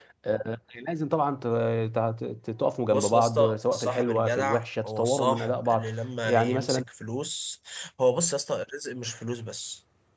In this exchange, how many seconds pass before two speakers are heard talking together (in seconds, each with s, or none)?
2.9 s